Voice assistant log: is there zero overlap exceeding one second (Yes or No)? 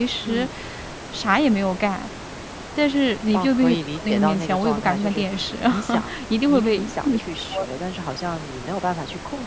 No